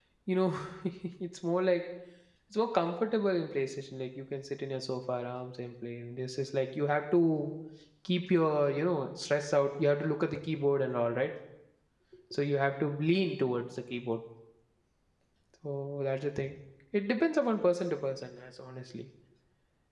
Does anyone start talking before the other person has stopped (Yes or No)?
No